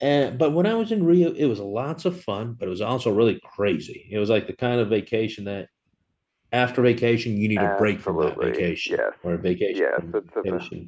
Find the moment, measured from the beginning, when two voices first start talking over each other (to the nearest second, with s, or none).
8 s